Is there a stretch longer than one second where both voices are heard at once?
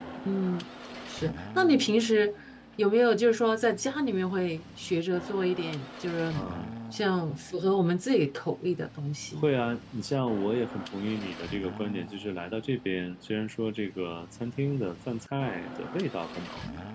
No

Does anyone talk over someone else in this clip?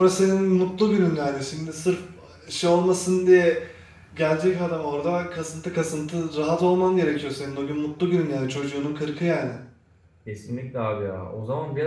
No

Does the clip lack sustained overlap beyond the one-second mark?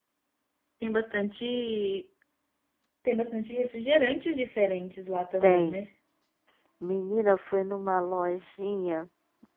Yes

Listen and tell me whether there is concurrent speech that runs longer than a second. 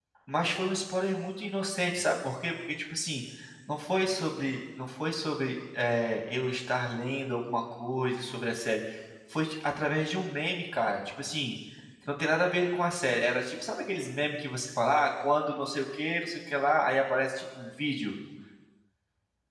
No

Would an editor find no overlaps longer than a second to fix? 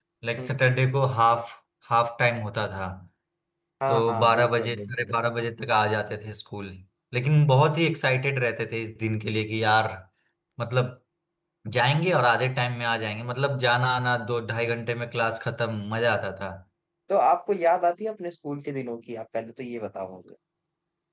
No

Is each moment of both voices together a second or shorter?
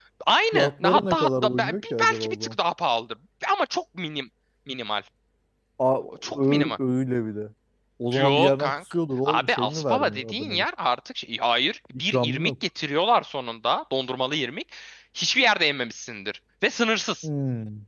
No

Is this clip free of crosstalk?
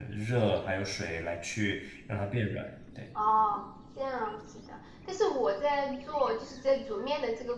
Yes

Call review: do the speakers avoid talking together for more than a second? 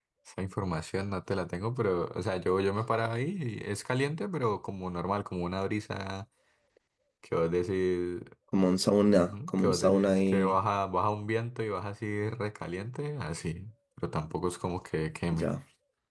No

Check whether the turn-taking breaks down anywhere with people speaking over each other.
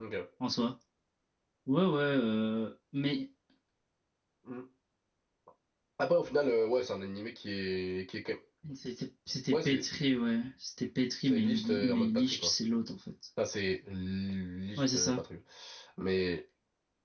Yes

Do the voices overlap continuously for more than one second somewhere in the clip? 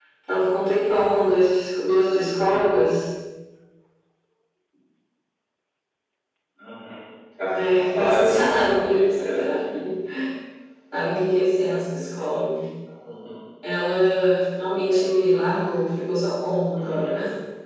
Yes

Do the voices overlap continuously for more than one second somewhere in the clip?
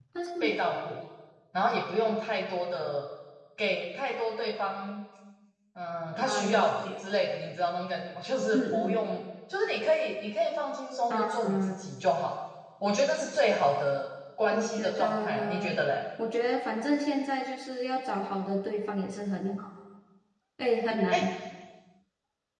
Yes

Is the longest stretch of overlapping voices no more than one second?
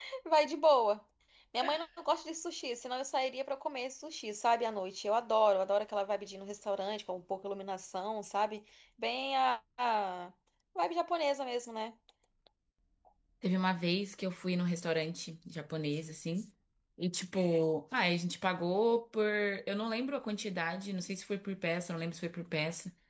Yes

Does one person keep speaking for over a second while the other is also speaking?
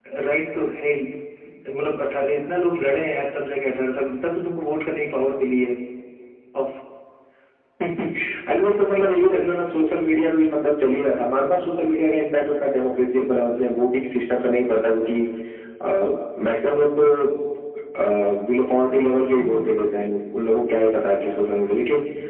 No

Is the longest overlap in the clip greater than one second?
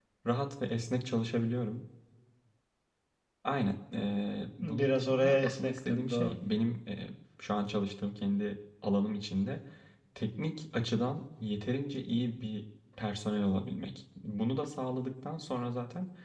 Yes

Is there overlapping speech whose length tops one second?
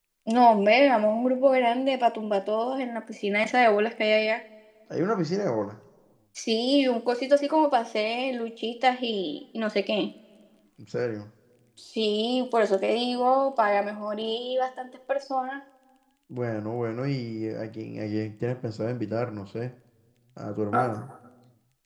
No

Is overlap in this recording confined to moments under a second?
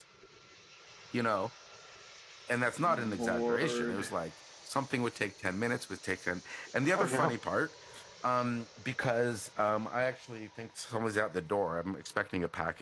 No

